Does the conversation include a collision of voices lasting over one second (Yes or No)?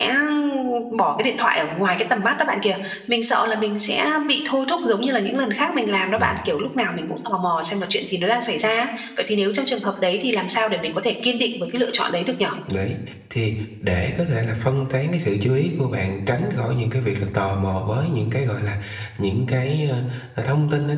No